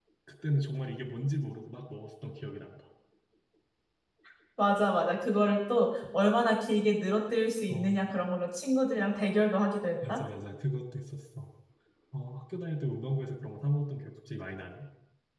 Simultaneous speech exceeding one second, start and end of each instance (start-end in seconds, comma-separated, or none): none